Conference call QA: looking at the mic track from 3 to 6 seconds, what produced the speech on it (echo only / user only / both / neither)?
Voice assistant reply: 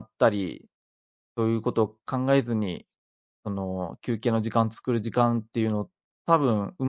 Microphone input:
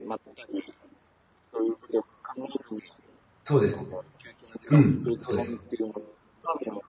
both